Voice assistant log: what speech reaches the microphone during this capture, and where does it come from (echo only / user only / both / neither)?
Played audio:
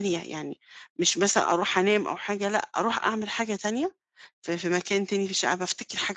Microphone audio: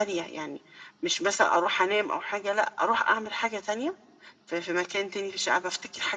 echo only